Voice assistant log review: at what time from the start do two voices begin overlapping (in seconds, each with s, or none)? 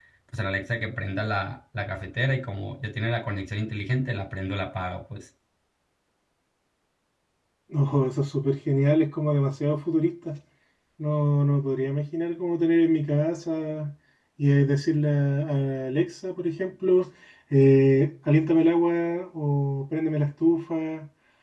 none